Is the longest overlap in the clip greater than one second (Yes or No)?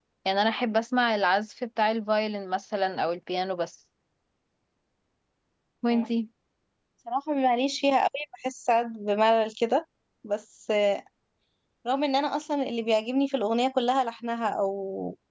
No